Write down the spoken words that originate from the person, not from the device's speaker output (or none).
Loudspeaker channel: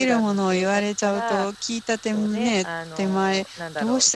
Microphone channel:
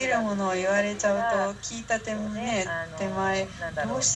none